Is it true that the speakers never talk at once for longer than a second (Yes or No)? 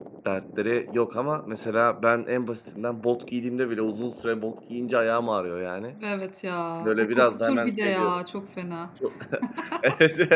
No